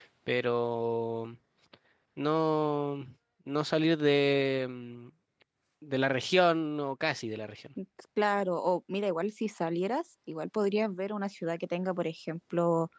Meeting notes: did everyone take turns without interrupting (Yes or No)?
Yes